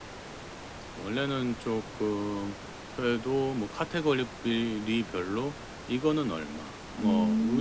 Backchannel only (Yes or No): Yes